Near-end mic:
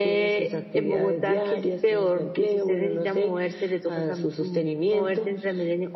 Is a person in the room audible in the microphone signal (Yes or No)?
No